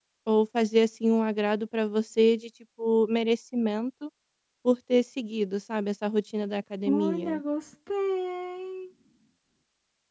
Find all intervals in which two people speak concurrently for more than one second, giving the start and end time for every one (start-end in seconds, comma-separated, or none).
none